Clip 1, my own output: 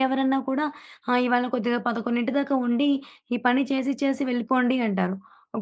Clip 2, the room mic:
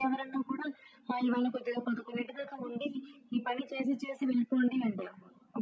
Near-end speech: none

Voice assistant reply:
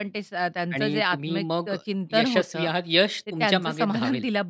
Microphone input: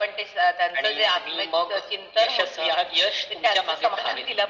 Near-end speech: none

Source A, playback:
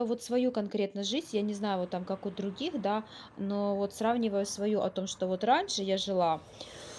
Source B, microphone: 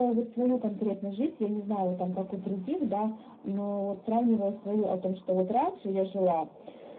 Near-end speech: none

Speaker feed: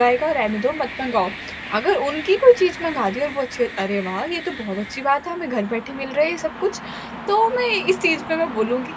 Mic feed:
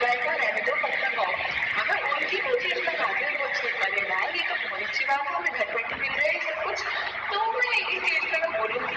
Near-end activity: none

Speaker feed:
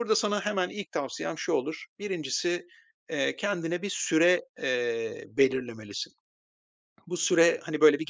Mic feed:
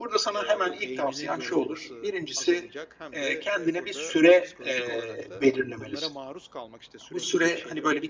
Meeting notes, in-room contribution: present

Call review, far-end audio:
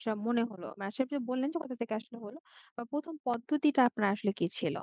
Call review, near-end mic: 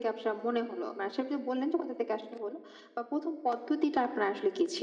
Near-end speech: none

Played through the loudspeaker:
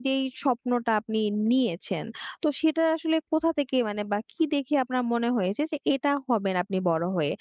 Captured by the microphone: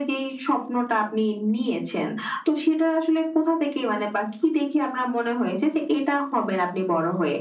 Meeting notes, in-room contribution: none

